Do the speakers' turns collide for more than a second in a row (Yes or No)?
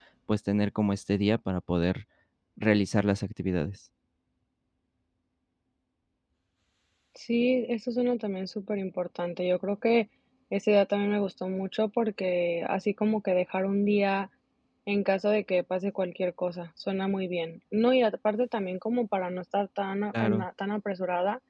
No